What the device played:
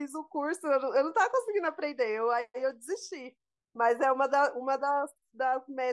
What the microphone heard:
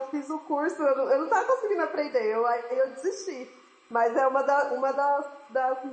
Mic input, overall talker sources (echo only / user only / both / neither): echo only